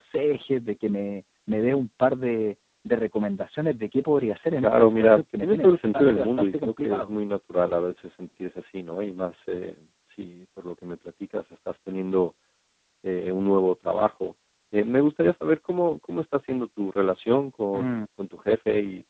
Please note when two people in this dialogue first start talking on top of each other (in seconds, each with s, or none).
4.6 s